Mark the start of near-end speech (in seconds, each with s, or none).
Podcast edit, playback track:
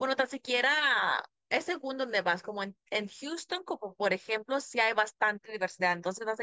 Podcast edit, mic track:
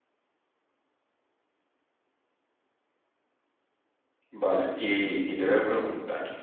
4.3 s